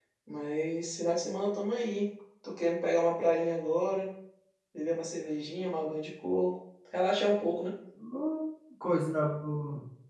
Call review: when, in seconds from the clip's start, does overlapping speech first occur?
none

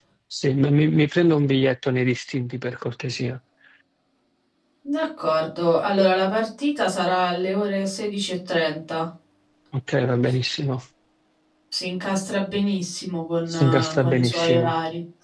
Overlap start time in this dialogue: 13.5 s

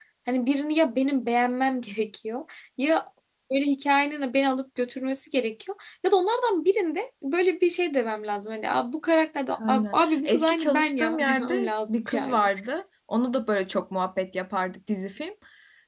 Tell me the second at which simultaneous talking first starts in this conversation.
9.6 s

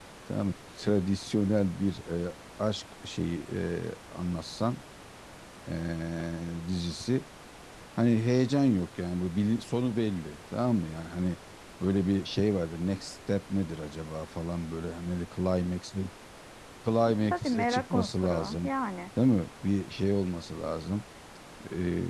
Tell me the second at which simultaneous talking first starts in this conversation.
17.3 s

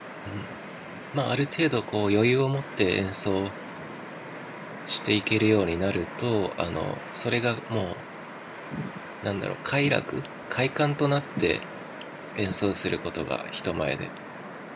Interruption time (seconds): none

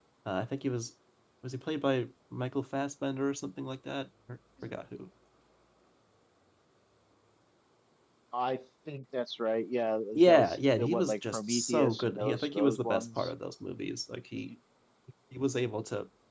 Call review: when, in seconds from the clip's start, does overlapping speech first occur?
10.2 s

